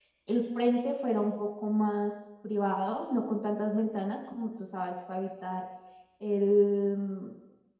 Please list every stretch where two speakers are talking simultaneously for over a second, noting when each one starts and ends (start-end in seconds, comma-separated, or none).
none